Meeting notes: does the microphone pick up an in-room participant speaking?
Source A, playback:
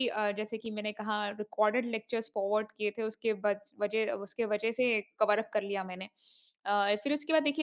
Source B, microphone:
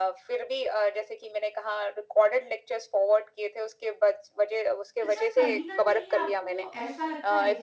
Yes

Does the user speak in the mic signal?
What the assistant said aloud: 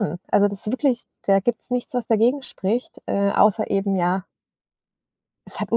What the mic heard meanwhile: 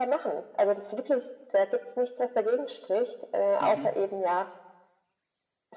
Yes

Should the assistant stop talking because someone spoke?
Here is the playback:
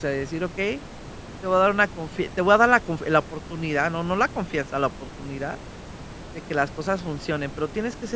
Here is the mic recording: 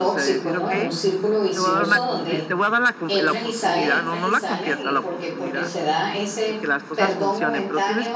Yes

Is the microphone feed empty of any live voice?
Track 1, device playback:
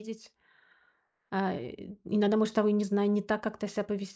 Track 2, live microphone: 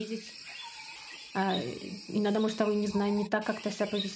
Yes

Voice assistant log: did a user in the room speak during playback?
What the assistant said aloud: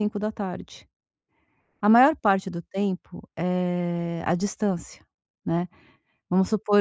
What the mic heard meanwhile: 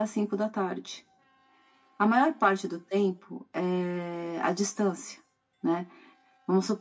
No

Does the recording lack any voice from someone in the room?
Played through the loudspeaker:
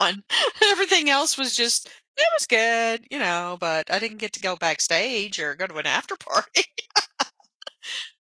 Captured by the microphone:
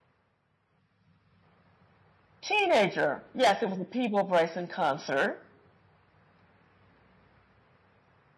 No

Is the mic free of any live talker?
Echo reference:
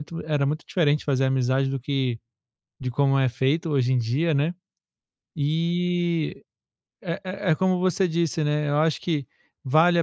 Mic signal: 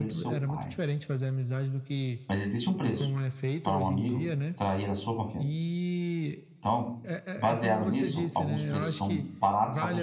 No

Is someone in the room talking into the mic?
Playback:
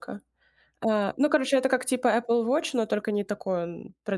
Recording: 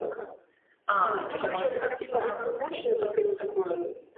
Yes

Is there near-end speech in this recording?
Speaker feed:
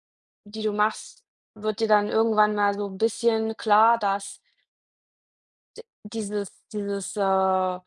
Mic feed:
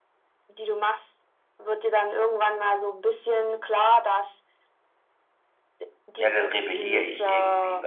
Yes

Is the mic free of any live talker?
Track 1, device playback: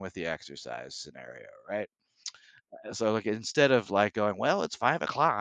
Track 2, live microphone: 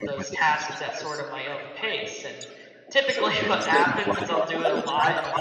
No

